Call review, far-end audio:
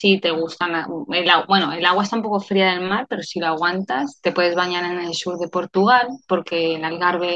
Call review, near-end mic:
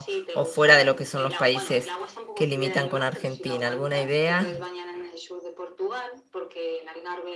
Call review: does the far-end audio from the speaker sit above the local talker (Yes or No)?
No